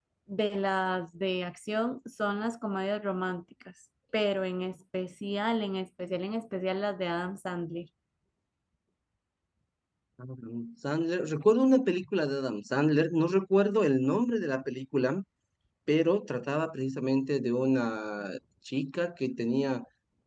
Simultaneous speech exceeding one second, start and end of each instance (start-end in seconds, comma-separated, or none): none